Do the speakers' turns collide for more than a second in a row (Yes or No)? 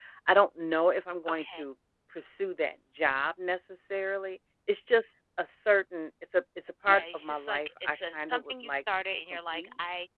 Yes